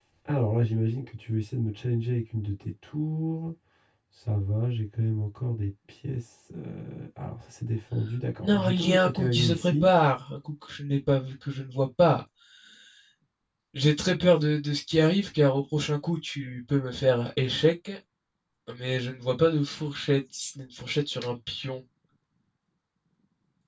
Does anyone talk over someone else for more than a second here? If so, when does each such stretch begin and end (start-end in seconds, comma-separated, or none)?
8.4-9.9